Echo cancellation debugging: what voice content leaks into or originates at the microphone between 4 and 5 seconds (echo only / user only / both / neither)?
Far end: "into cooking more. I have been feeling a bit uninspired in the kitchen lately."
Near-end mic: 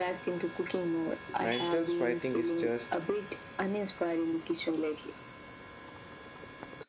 echo only